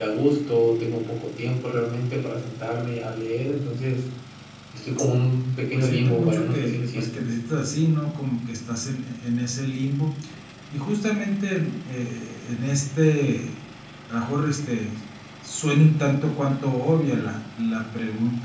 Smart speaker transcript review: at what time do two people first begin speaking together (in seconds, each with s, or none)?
5.7 s